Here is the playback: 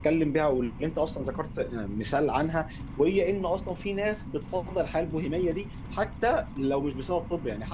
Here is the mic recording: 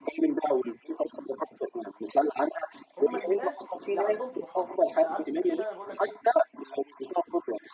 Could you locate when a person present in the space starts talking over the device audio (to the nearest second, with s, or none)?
3 s